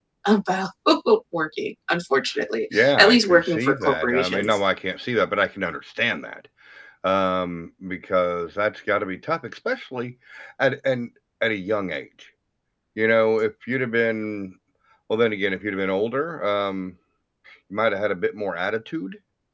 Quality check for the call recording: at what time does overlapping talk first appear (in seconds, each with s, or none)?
2.7 s